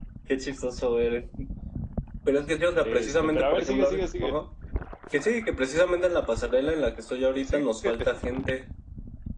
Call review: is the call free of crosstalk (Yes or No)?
No